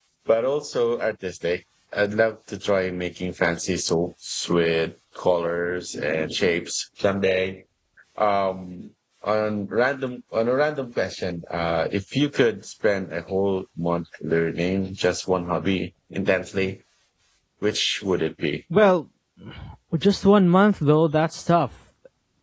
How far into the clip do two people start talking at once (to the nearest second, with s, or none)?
none